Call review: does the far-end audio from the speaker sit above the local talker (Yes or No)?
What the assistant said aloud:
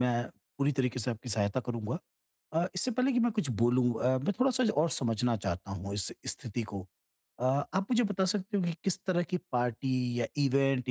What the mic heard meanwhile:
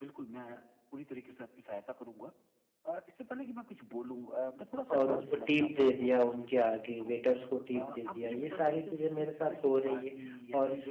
No